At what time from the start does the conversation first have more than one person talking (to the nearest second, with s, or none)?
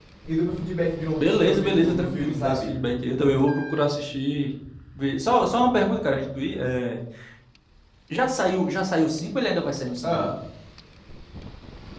1 s